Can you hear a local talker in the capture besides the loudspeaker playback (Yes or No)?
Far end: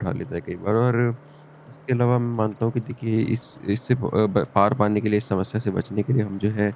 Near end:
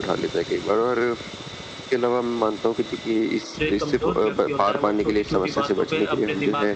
Yes